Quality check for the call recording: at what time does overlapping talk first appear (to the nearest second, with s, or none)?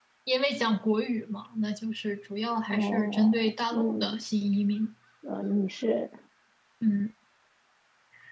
3 s